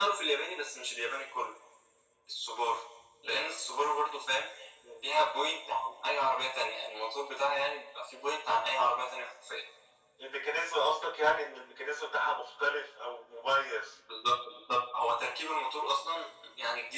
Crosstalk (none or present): none